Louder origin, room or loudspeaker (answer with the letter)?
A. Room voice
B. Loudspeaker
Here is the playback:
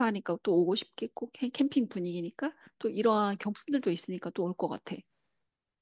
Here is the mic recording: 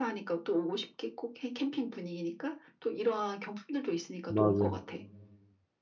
A